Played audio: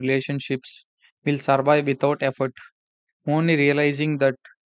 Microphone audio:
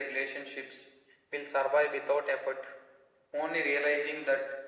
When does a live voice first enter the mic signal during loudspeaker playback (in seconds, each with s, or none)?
none